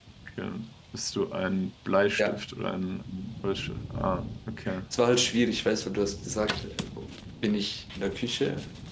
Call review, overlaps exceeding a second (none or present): none